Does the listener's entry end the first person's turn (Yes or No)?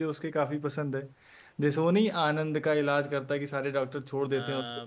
Yes